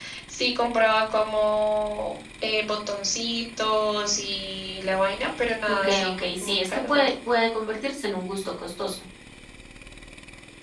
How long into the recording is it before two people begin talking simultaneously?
5.7 s

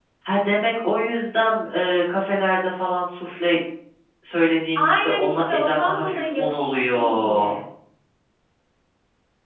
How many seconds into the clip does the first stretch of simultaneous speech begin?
4.8 s

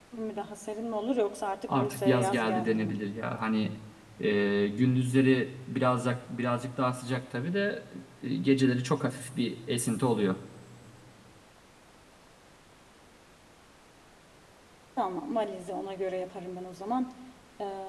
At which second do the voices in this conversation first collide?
1.7 s

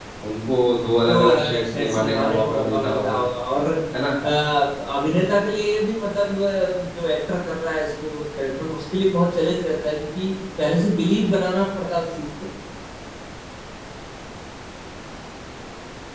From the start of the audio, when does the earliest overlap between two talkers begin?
1.1 s

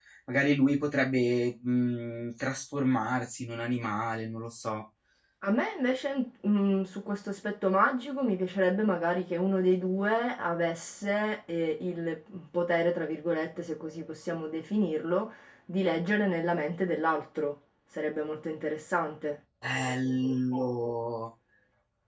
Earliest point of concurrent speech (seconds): none

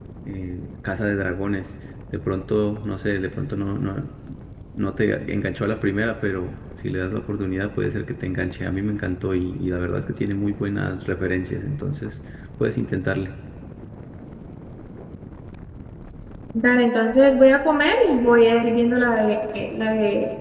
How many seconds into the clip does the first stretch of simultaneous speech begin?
none

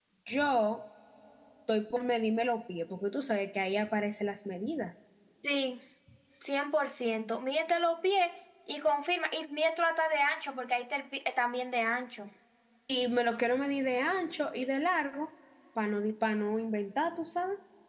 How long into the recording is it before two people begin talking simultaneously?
none

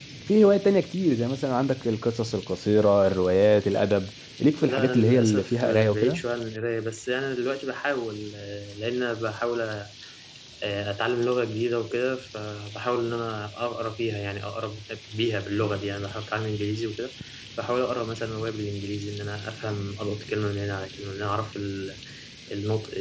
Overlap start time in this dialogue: 4.6 s

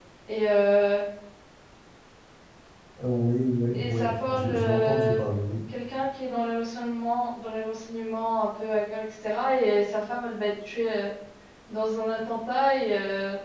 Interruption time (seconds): 3.7 s

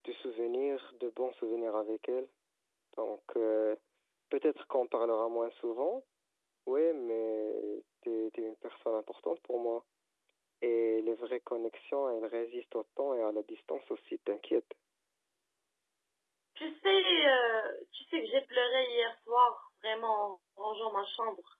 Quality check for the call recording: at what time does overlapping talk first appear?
none

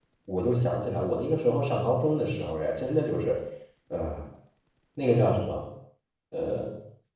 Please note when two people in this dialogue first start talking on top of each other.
none

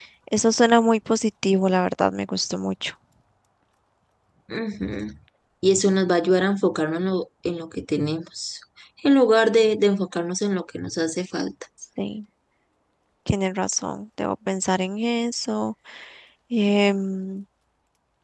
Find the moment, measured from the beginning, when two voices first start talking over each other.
none

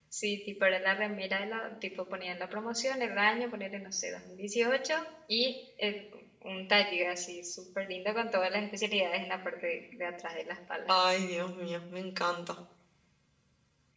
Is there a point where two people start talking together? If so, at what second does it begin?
none

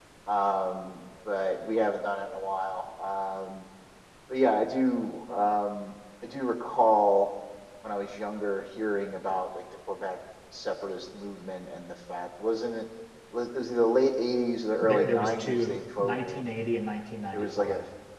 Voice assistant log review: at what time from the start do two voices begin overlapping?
14.8 s

